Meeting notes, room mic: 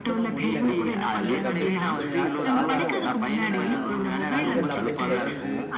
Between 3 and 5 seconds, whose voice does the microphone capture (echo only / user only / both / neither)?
both